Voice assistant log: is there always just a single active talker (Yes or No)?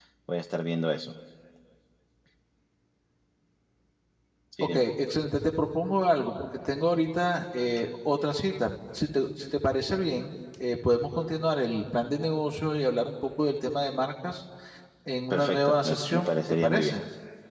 No